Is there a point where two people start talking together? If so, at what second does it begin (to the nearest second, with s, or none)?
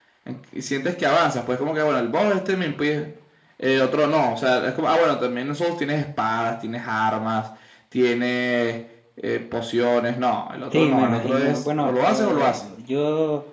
11 s